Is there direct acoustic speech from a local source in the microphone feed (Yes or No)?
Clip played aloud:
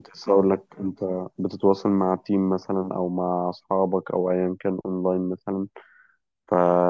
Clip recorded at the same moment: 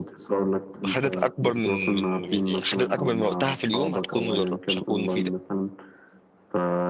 Yes